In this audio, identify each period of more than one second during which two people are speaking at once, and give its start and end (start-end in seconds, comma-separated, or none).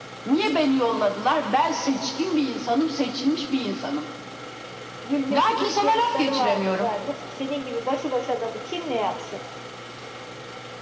5.3-6.9